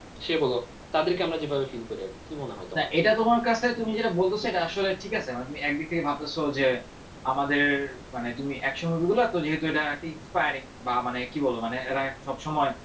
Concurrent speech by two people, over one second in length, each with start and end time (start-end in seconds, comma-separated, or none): none